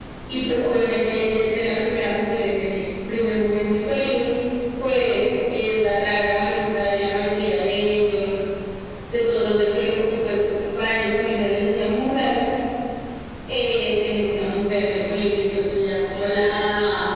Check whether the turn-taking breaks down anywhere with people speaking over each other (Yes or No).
No